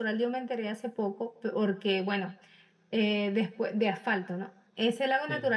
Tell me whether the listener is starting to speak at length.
No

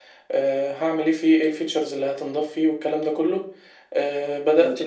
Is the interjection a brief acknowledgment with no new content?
Yes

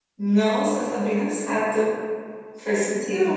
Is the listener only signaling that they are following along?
No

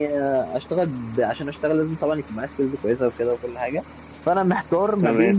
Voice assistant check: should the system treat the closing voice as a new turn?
No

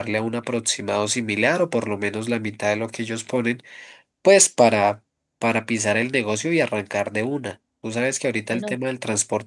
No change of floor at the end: Yes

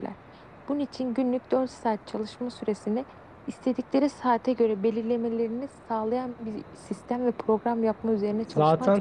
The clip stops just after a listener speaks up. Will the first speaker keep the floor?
No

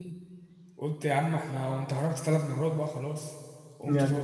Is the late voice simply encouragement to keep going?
No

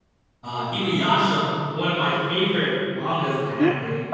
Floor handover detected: Yes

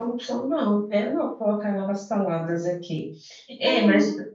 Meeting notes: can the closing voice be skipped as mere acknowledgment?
Yes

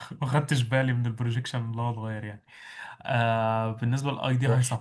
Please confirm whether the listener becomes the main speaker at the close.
No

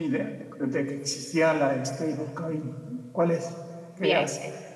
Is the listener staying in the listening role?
No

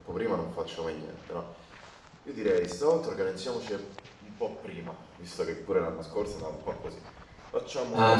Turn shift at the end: Yes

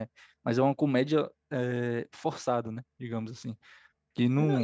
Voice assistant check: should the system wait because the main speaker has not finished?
No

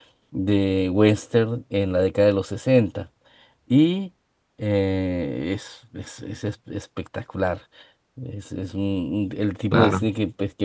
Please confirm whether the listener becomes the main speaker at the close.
No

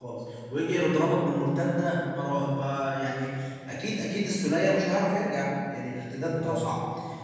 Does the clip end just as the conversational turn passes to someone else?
No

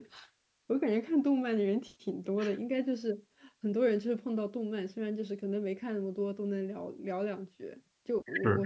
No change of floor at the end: Yes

